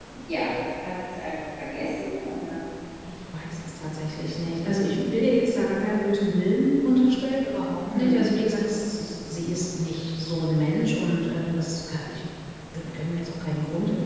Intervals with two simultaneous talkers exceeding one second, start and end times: none

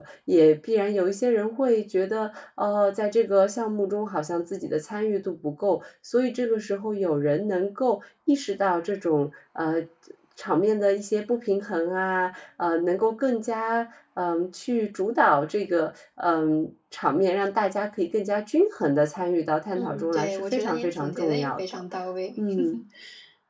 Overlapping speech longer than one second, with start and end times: 19.8-21.6

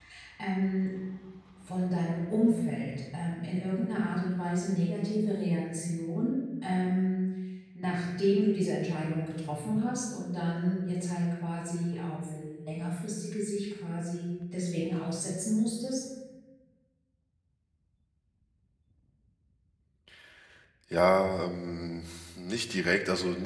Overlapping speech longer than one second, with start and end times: none

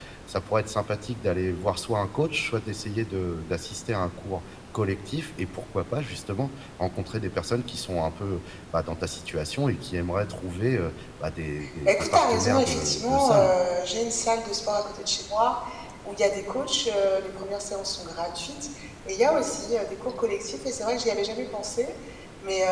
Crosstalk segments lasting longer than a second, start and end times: 11.8-13.5

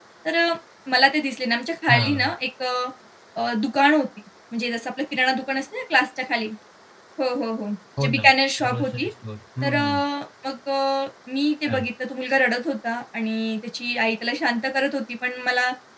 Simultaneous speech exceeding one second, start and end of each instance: none

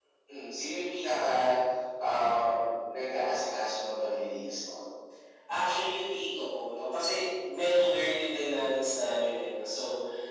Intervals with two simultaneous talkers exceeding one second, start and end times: none

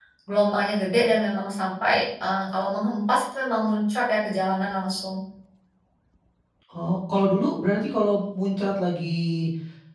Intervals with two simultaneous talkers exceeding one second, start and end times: none

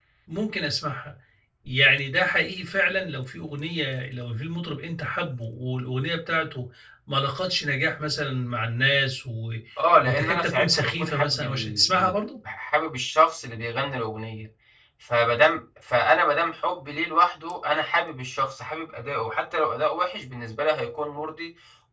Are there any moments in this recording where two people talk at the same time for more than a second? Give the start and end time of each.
10.0-12.1

